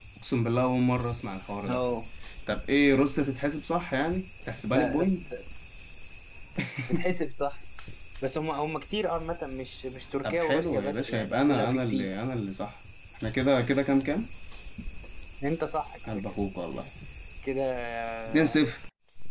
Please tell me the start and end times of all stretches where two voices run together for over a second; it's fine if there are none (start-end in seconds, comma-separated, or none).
10.2-12.1